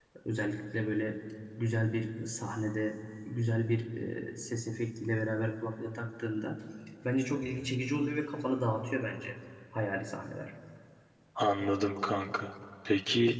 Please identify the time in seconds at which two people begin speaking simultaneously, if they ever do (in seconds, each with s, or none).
none